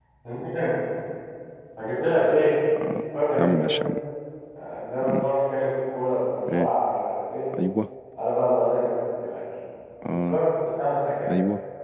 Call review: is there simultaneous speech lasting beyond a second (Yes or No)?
No